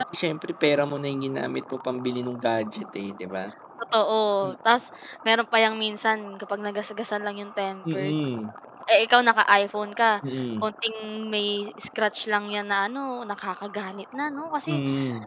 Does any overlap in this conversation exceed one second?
No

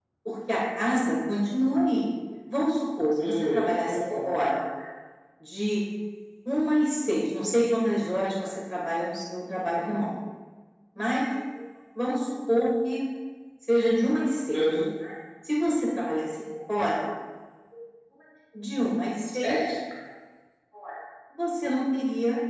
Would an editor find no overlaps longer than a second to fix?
No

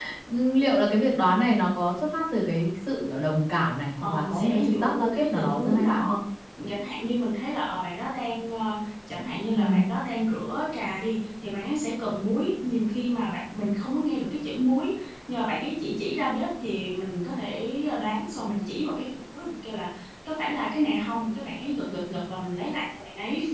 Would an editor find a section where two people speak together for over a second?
Yes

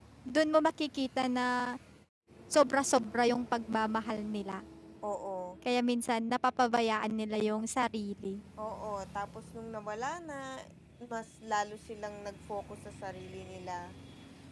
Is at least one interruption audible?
No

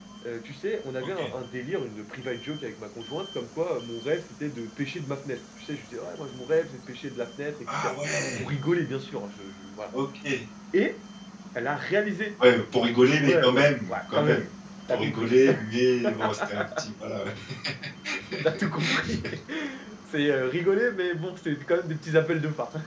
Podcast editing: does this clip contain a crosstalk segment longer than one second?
Yes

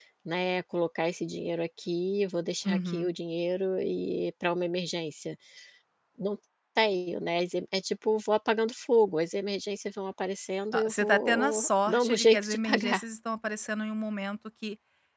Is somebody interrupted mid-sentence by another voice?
Yes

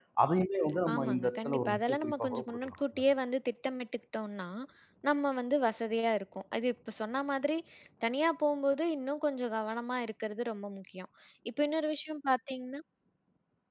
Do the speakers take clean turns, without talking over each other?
No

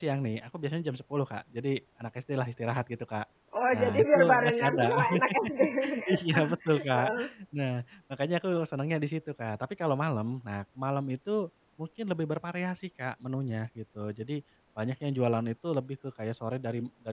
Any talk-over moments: Yes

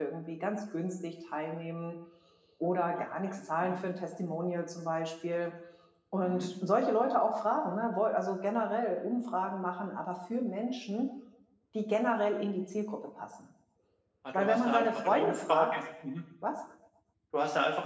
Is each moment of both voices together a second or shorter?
No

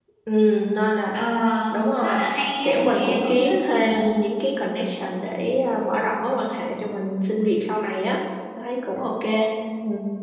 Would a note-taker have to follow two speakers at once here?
Yes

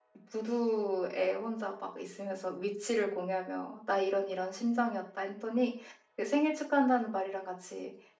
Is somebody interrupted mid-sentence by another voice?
No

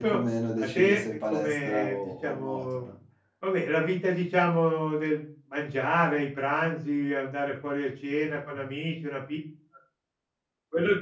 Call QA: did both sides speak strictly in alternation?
No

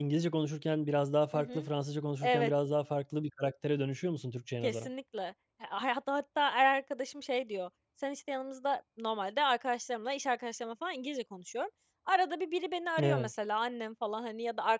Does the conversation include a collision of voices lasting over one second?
No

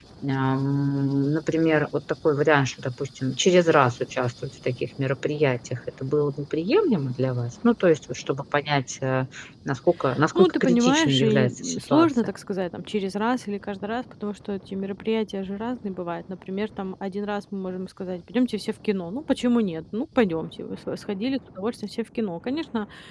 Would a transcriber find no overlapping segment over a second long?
No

